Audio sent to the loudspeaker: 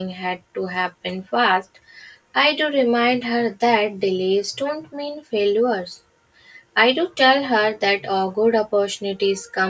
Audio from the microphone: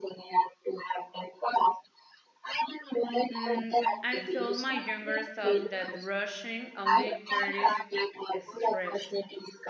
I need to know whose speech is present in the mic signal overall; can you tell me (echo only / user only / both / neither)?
both